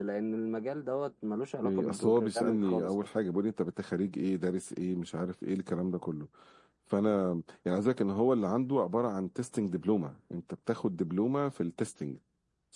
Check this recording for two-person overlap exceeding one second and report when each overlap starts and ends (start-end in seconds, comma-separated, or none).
1.6-3.1